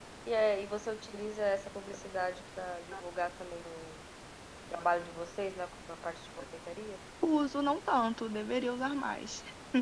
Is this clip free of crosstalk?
Yes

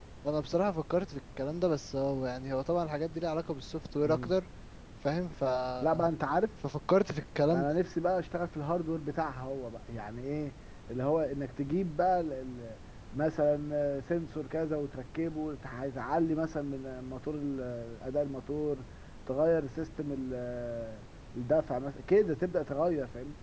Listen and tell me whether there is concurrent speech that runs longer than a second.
No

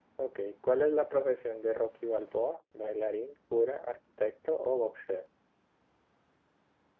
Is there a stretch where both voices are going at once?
No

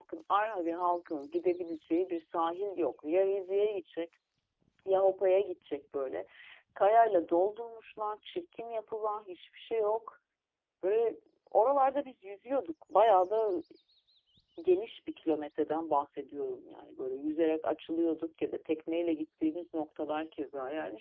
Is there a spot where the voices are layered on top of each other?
No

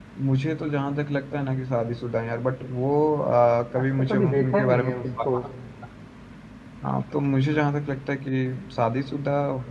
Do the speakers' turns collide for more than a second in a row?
Yes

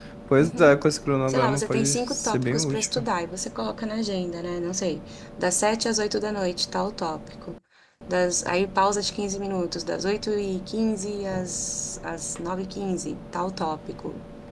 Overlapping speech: Yes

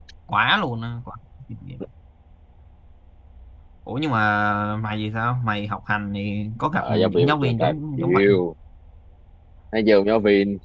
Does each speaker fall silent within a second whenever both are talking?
No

